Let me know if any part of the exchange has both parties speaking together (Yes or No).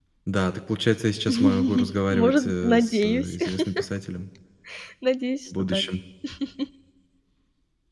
Yes